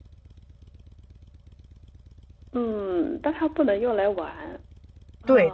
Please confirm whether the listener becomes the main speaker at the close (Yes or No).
Yes